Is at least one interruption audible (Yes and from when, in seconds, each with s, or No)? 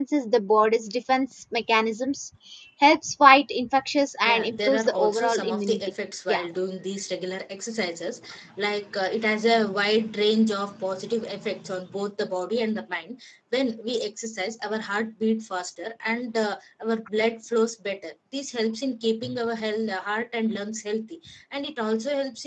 Yes, from 4.2 s